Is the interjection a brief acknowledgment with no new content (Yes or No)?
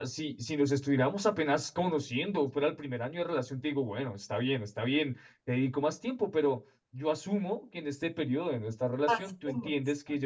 Yes